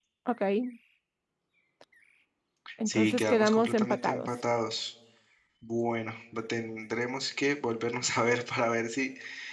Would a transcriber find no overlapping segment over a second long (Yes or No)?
No